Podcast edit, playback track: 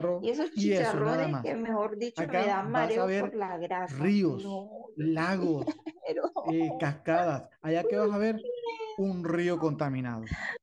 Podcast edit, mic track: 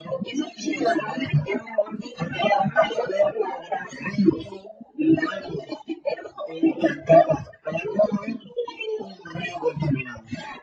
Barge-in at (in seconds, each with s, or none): none